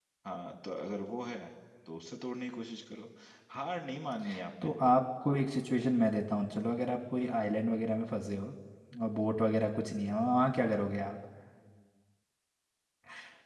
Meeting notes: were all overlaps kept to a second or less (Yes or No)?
Yes